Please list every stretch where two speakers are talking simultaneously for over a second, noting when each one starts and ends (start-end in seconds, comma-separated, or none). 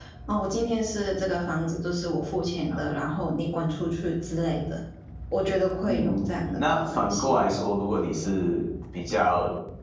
5.9-7.4